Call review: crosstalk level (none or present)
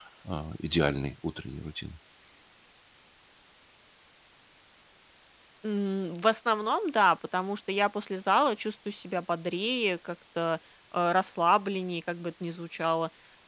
none